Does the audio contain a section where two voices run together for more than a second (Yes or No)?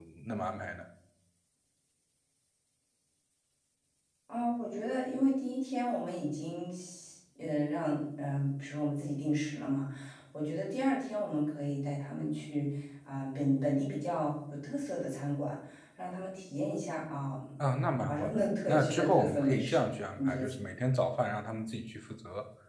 Yes